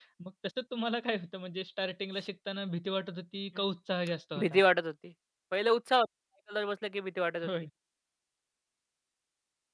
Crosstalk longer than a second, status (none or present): none